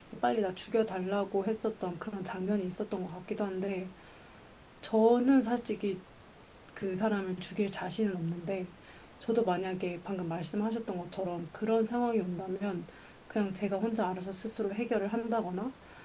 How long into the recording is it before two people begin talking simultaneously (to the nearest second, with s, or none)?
none